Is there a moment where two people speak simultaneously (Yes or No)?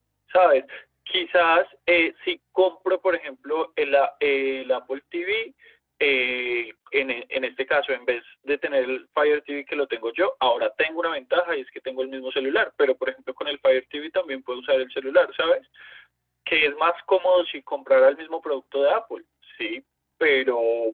No